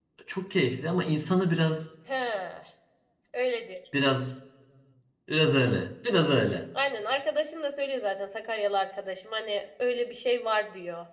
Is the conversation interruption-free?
Yes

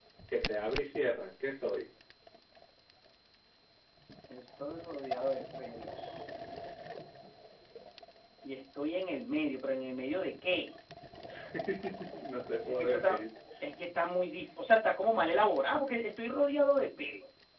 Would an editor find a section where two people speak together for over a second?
No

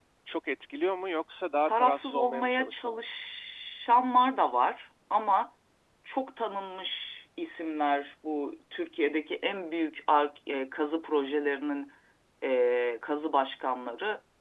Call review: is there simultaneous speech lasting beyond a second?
Yes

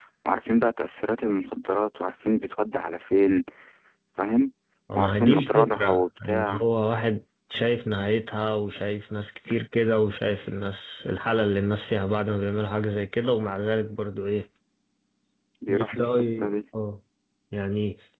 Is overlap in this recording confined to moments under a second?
No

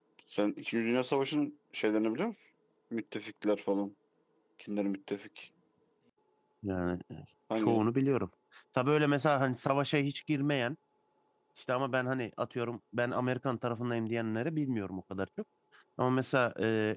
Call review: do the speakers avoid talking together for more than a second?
Yes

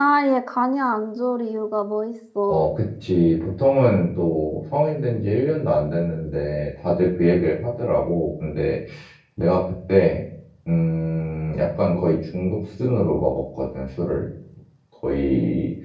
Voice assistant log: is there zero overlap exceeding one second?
Yes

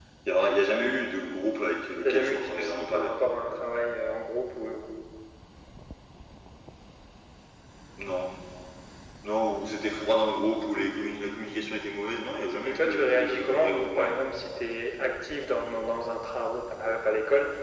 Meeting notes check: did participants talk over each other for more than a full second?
Yes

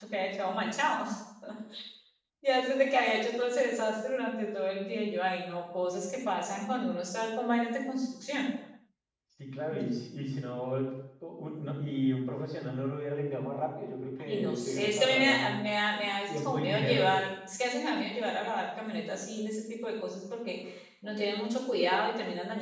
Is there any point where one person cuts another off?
Yes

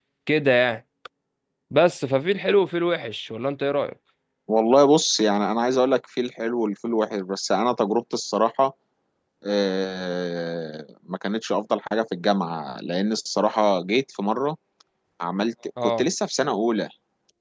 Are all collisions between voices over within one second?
Yes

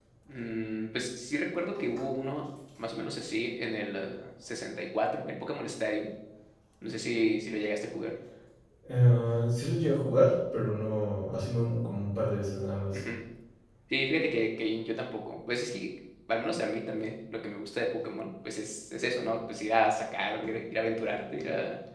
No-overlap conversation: Yes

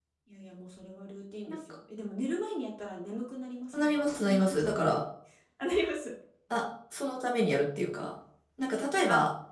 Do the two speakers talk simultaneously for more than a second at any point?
Yes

